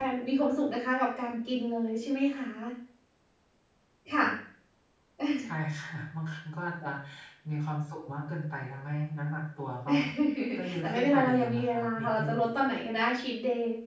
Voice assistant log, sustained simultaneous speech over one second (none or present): present